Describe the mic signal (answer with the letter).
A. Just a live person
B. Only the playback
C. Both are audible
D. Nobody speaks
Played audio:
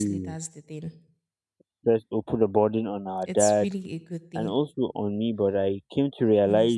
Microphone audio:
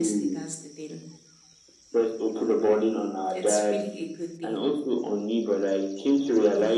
B